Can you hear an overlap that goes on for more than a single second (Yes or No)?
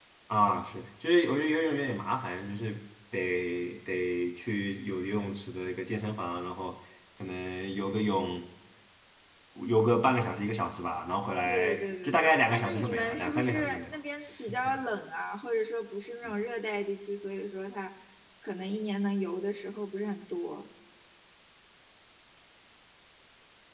Yes